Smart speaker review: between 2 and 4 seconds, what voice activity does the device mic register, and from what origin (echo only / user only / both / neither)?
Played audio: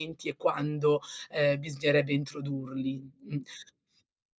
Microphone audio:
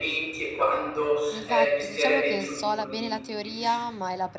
both